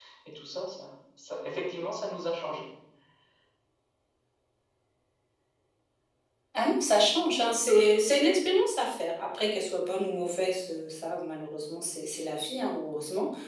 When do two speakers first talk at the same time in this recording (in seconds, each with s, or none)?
none